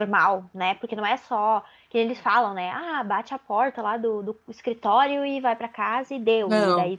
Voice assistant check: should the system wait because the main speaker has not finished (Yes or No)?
Yes